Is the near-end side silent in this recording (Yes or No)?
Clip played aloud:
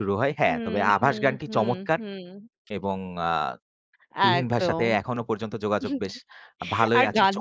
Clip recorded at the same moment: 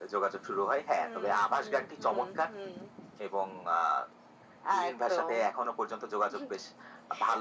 Yes